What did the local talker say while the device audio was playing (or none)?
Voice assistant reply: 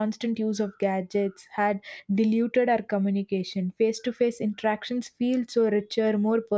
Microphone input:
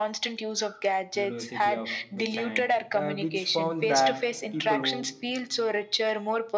University of Michigan, uh, which found that people who